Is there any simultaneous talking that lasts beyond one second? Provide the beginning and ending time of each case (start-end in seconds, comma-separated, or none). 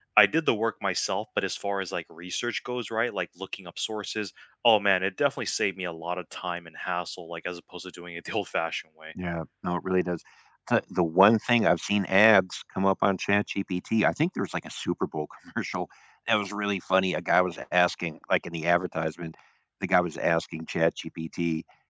none